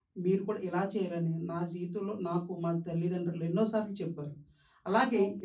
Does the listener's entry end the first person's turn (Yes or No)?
Yes